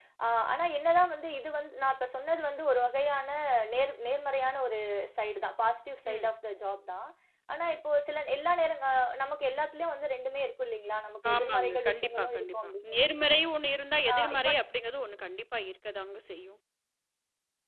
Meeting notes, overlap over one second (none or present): present